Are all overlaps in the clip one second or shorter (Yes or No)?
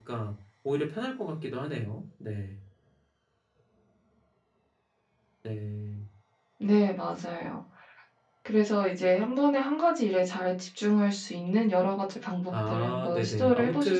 No